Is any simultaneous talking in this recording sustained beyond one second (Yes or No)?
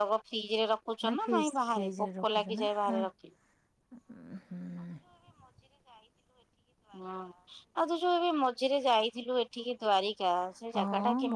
Yes